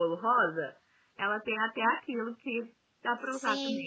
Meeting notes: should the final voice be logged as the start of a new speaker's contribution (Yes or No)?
Yes